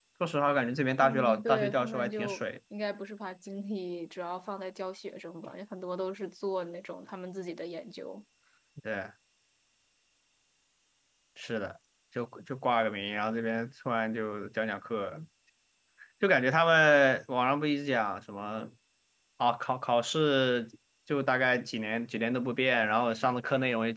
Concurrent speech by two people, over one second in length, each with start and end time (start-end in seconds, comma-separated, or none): 1.0-2.4